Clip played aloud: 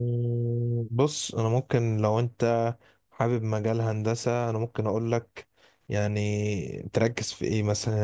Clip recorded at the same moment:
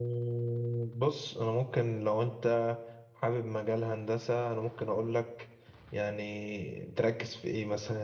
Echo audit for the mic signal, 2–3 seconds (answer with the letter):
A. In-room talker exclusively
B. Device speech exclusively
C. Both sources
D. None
B